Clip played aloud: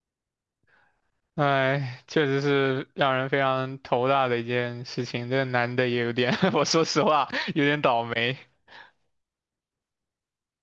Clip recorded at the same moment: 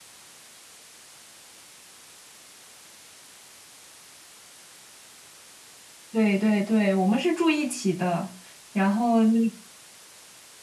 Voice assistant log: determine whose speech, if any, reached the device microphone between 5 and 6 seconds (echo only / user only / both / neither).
neither